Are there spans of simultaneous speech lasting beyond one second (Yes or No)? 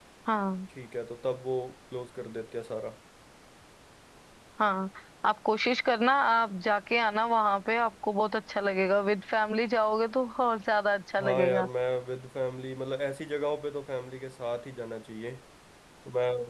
No